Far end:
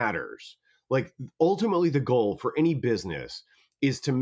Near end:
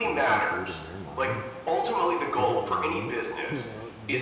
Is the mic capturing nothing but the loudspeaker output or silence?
No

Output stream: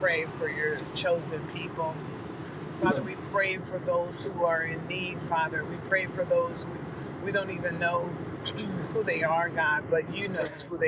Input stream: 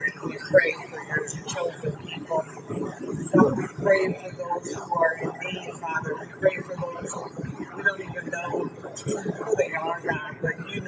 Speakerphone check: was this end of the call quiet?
Yes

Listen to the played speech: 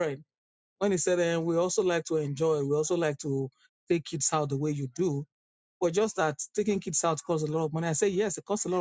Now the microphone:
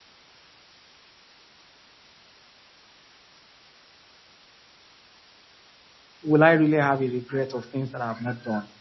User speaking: Yes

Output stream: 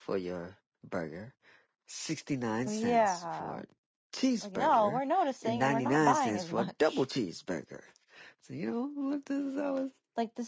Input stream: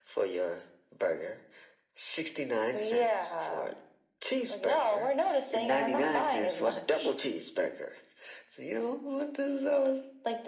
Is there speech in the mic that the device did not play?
No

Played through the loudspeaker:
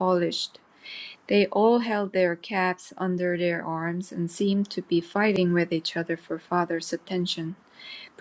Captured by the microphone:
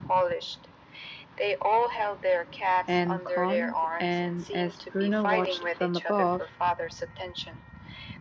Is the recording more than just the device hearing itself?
Yes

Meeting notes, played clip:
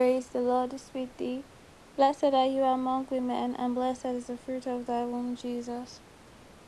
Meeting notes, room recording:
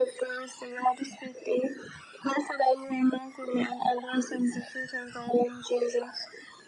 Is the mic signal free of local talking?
Yes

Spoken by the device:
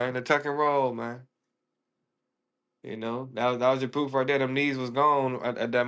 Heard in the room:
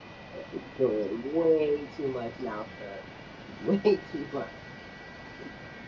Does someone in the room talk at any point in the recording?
Yes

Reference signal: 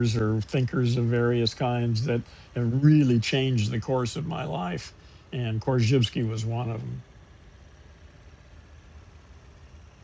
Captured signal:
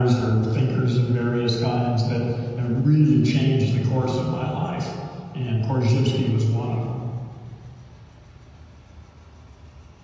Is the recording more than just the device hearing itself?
No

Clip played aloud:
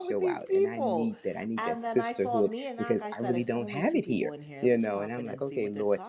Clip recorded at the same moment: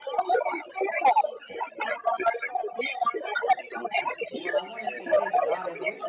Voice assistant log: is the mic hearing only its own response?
No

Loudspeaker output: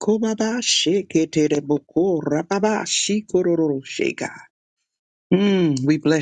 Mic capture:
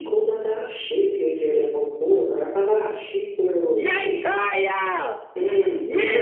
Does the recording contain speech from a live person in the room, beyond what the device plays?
Yes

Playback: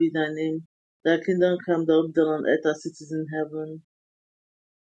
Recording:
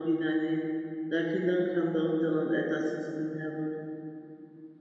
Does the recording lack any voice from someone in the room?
Yes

